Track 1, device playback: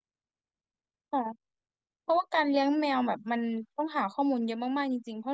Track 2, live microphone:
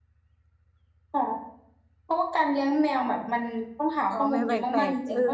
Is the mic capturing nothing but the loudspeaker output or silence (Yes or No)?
No